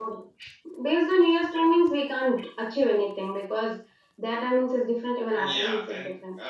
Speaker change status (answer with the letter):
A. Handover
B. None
A